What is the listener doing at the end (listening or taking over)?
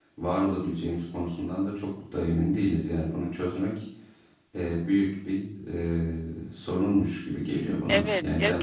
taking over